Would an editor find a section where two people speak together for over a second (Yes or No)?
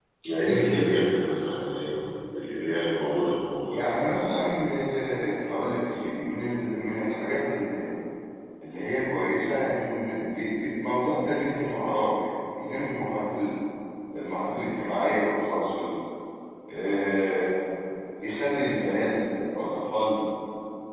No